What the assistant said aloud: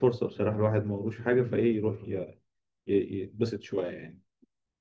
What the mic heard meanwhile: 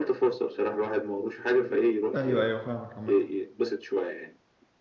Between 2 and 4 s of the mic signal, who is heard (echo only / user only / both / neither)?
both